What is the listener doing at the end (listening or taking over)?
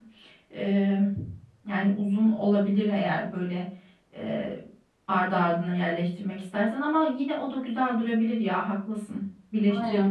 taking over